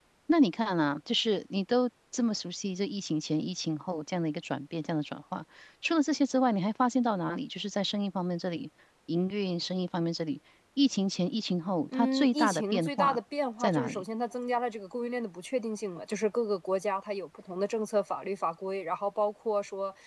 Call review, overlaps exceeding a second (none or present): present